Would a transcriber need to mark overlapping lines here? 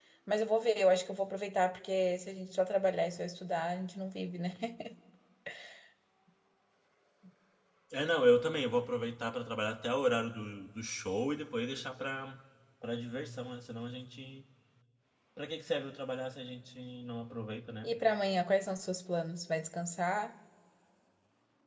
No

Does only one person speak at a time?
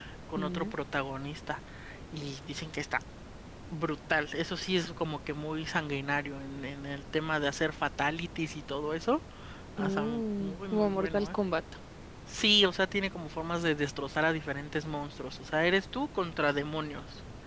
No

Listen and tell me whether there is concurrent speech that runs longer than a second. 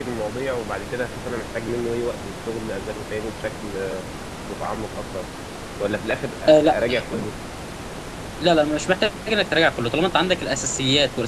No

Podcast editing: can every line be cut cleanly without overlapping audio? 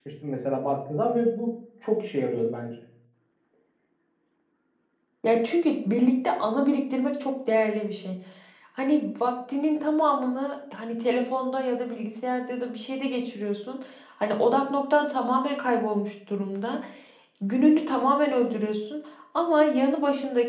Yes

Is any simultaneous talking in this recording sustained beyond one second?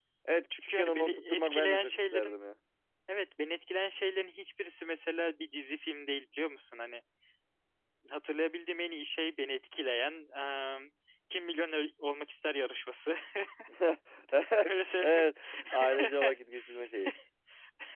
Yes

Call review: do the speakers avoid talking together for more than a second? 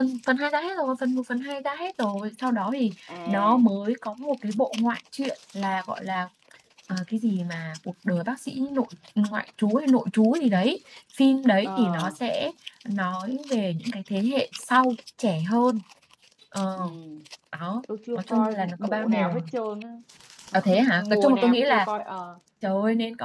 No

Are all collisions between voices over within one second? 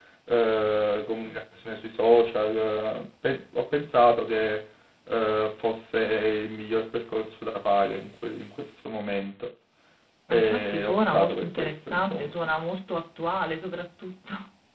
No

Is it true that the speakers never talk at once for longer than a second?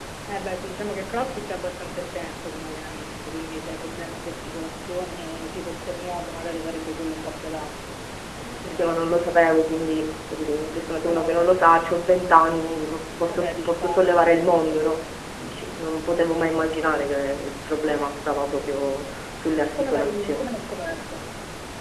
No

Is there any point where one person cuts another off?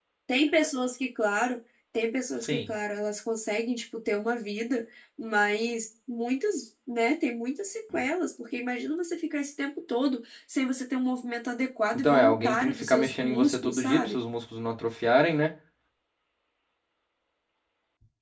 Yes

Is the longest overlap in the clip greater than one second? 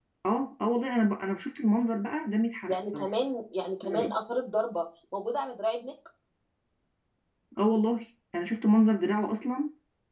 No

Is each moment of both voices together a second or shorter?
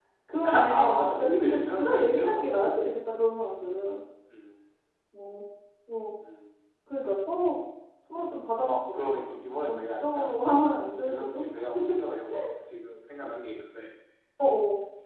No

